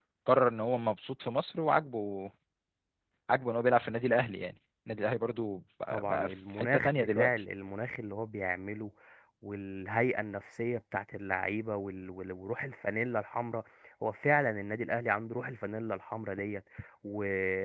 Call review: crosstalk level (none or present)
present